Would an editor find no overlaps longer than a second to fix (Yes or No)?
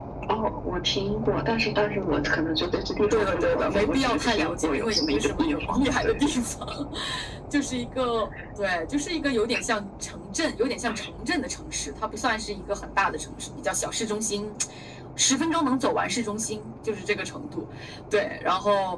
No